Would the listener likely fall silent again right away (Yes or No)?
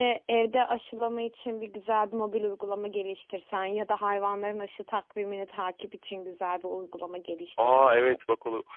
No